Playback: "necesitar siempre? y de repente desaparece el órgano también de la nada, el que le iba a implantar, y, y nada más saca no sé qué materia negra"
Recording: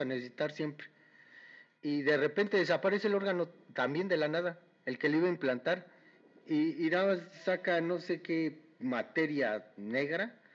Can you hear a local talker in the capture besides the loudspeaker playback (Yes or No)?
No